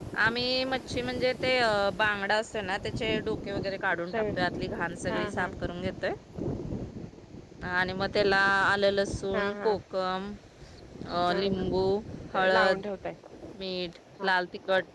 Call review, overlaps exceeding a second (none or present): none